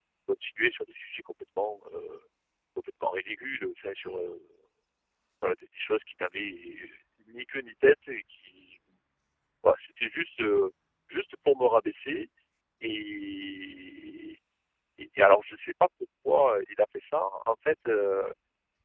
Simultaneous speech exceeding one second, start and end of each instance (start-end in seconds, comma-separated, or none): none